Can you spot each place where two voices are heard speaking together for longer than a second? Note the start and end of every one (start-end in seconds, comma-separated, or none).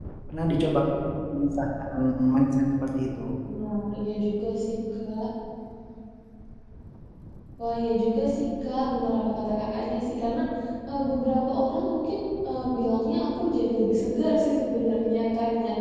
none